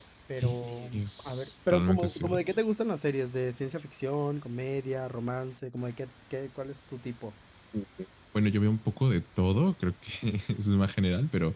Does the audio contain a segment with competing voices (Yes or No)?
Yes